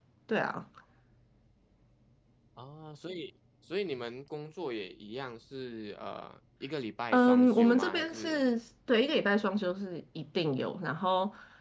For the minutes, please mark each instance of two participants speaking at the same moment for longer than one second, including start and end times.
7.1-8.4

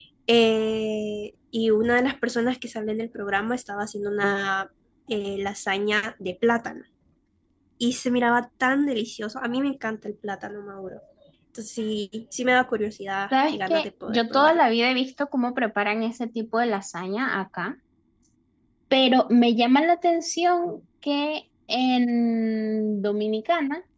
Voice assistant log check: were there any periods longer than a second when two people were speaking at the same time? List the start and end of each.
13.3-14.6

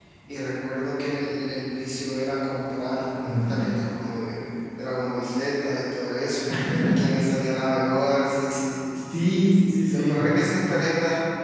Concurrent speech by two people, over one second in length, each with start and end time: none

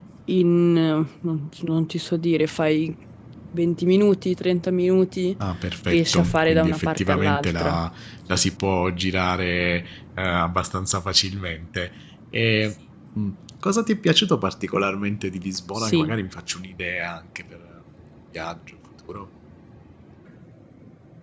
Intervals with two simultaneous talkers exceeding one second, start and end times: 5.9-7.8

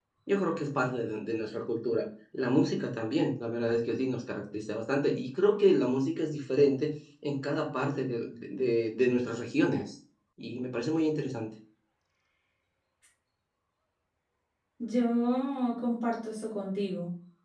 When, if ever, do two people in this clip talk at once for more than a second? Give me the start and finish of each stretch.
none

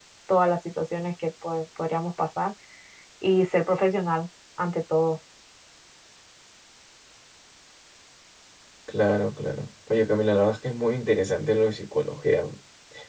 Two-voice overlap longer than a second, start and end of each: none

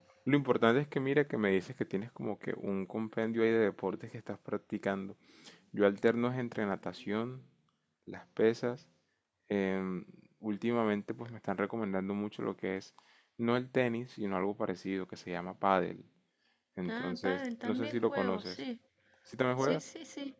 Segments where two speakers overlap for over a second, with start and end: 16.9-18.6

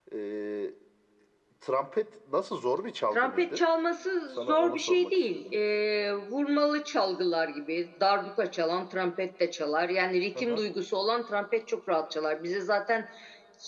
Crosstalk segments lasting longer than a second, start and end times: 4.3-5.5

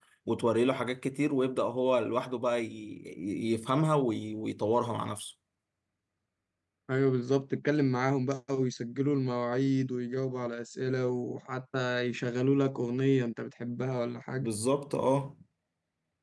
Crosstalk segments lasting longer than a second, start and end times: none

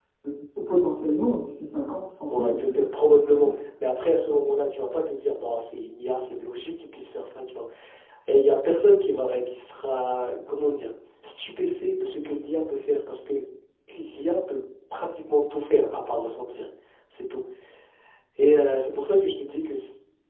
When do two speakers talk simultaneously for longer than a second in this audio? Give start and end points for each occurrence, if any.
2.3-3.6

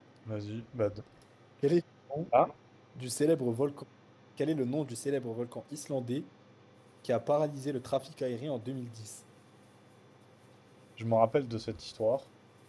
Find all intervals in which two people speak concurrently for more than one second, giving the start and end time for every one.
none

